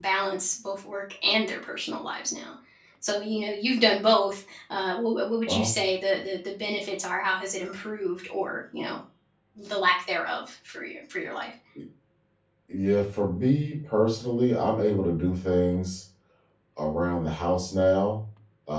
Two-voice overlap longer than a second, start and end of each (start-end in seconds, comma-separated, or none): none